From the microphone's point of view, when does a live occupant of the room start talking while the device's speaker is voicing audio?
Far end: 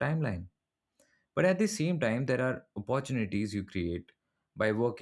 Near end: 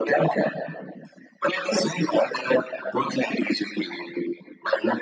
none

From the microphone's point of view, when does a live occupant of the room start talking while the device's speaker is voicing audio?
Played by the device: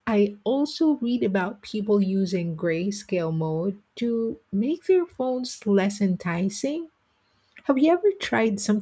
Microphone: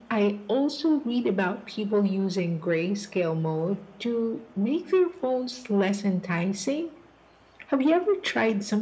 none

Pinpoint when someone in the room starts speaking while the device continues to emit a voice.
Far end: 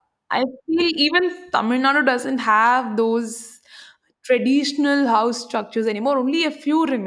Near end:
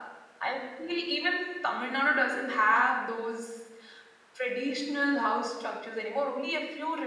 none

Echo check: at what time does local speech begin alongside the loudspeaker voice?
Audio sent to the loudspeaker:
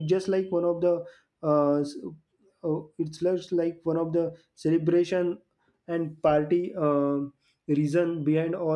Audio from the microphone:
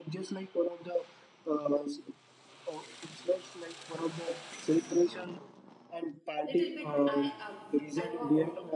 6.4 s

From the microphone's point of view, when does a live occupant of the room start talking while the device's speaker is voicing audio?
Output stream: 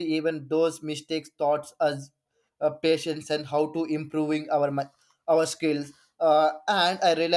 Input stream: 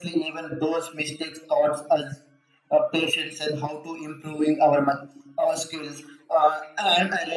none

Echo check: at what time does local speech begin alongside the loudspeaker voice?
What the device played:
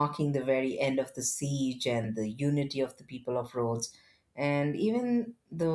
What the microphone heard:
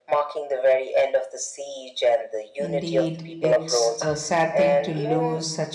2.6 s

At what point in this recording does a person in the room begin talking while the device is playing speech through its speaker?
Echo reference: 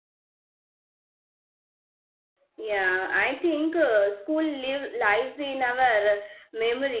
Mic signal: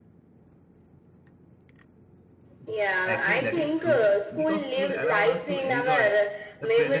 3.0 s

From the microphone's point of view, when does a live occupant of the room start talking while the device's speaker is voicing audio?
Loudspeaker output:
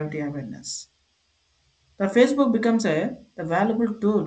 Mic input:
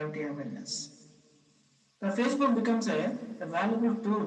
none

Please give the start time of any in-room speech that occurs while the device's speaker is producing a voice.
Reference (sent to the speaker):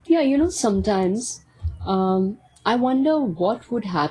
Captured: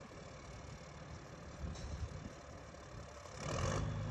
none

